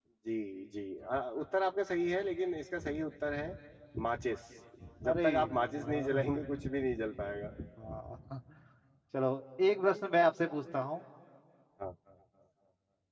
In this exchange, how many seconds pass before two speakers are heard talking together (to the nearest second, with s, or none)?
5 s